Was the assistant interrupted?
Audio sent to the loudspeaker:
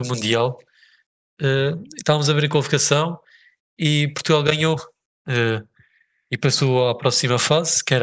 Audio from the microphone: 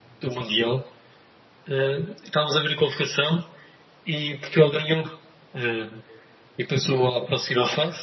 No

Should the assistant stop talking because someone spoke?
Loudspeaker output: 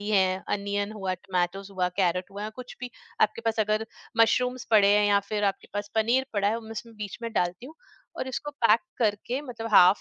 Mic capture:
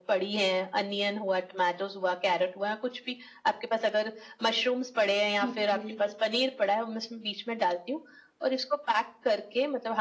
Yes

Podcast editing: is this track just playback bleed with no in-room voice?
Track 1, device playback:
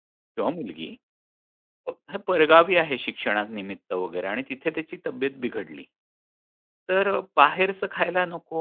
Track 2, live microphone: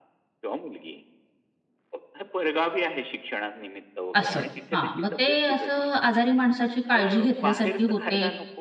No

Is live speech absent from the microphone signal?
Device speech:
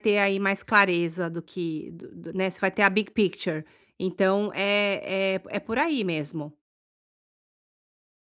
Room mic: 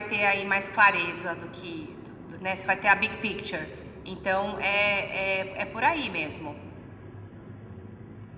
Yes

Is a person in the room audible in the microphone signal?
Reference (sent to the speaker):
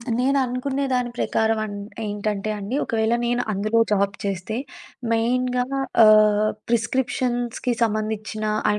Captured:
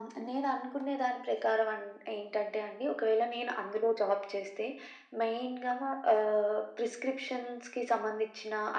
No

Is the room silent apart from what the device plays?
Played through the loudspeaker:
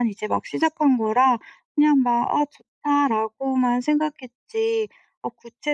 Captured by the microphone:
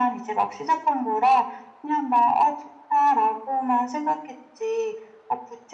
Yes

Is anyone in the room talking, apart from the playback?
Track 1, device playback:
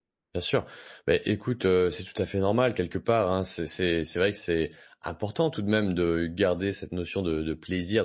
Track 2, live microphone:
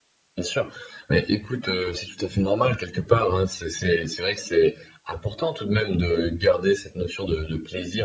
No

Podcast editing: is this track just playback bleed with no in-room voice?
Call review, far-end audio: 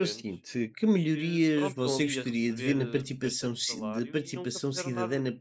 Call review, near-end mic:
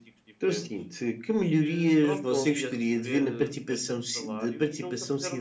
Yes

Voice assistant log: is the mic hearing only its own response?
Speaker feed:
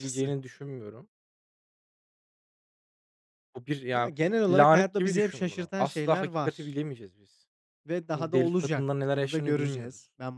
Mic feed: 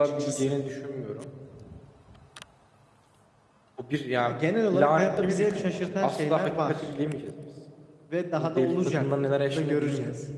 Yes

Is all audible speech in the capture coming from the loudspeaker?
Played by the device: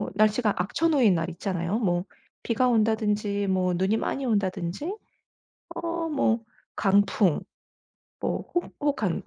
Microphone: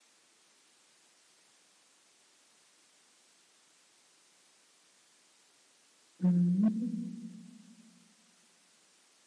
No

